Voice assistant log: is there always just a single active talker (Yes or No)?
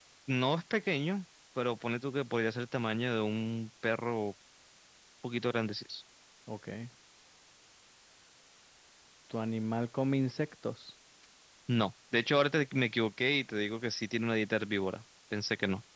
Yes